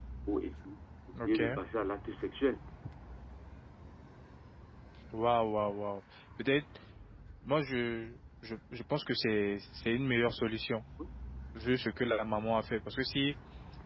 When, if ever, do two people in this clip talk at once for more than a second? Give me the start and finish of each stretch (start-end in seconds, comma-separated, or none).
none